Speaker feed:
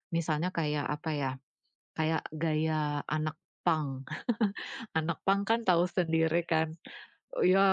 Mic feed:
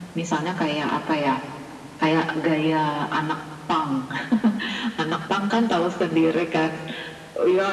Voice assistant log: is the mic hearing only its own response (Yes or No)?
Yes